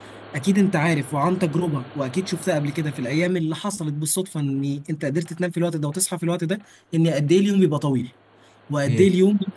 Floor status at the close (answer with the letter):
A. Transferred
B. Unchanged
B